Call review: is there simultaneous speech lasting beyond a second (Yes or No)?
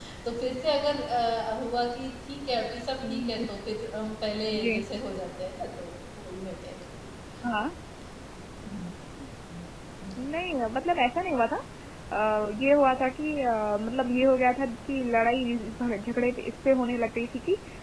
No